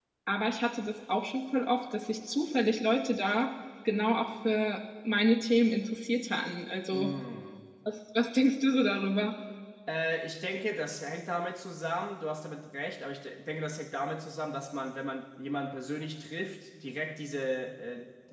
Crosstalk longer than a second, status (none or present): none